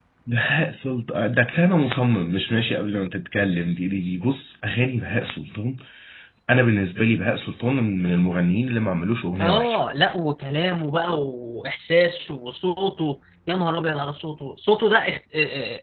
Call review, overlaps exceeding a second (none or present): none